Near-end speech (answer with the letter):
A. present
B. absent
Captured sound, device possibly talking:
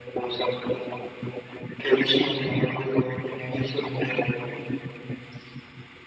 B